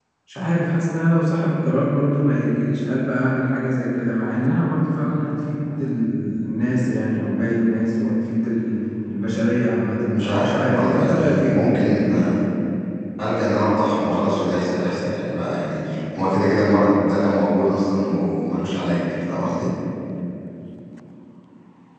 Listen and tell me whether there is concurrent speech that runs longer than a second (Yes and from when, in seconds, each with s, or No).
Yes, from 10.1 s